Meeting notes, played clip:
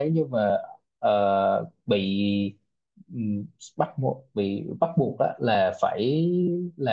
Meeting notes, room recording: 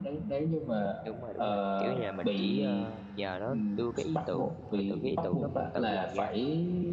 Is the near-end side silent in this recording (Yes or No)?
No